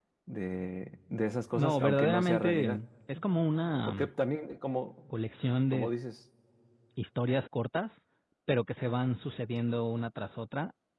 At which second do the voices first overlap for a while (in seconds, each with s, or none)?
1.5 s